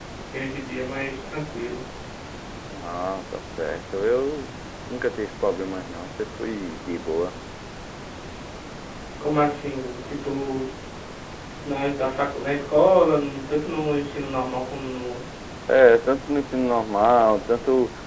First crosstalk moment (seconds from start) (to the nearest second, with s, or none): none